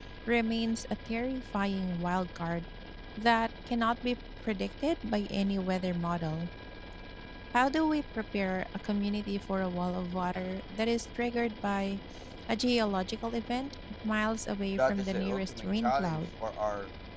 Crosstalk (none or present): present